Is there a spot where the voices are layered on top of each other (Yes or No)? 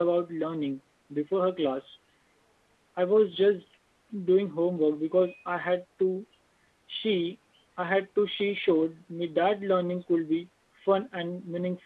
No